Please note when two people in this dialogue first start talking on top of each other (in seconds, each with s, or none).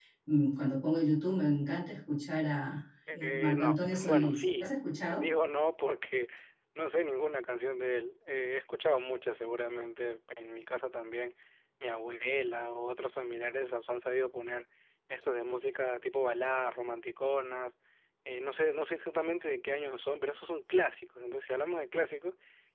3.1 s